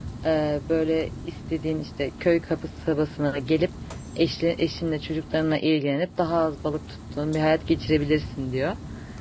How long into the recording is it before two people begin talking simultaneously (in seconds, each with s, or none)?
none